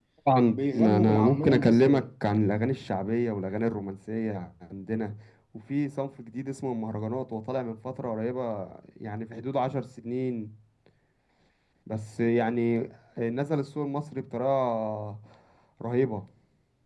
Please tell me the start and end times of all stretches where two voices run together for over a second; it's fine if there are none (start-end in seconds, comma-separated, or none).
0.5-2.0